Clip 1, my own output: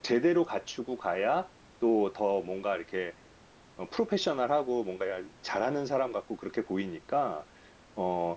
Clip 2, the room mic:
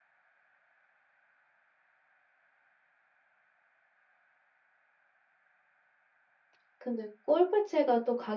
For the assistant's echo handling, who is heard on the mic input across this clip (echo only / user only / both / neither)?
user only